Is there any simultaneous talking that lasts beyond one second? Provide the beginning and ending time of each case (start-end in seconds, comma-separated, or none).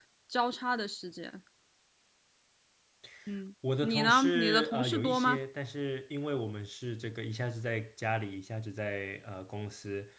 3.8-5.4